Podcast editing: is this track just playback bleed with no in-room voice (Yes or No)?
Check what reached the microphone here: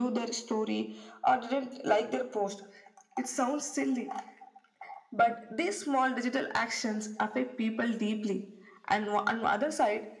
Yes